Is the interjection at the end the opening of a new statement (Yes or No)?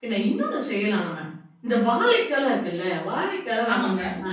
No